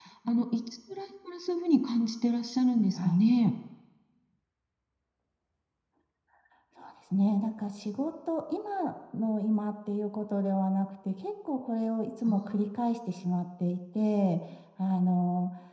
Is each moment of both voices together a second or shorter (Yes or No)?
Yes